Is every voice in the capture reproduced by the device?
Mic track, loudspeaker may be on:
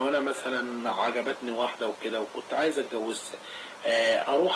Yes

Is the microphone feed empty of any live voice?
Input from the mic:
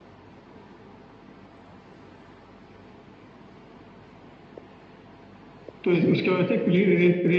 No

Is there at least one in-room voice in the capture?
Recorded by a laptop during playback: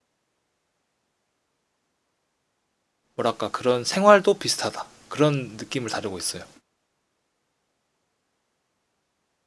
Yes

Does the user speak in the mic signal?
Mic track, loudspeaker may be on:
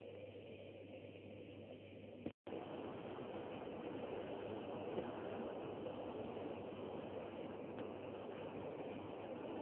No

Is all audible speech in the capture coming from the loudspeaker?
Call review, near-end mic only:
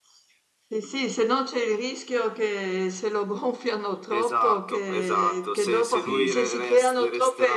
No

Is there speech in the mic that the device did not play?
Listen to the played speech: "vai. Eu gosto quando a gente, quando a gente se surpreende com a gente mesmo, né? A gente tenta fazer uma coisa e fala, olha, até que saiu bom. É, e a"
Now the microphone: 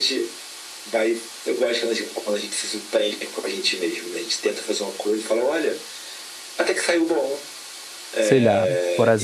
Yes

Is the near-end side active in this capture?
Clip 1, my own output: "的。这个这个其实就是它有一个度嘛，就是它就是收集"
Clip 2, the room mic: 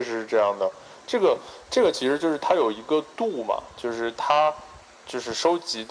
No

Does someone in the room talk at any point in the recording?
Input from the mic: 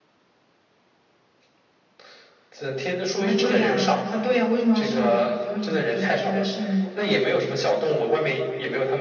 No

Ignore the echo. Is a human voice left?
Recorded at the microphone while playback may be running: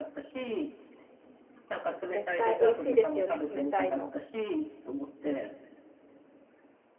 Yes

